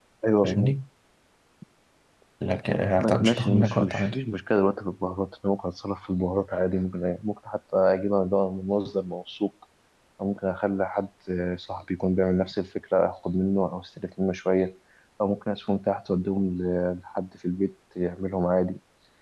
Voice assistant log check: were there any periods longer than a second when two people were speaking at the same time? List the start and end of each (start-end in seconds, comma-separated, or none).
3.0-4.2